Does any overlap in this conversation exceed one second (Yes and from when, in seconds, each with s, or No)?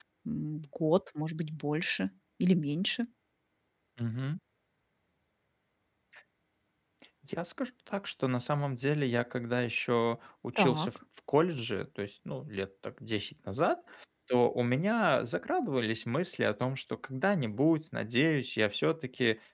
No